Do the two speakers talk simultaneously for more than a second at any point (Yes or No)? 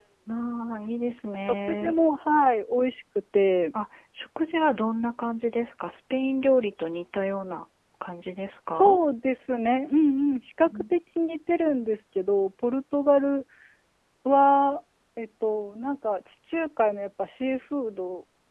No